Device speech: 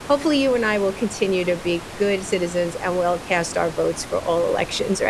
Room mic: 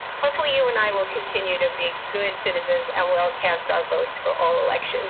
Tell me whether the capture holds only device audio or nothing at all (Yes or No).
No